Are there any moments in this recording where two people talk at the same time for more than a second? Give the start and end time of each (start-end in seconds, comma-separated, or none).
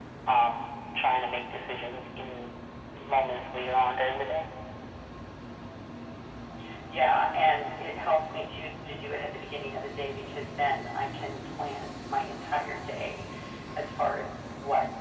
none